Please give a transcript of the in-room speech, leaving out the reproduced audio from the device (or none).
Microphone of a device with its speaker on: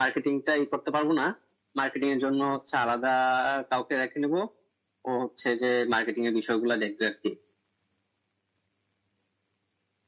none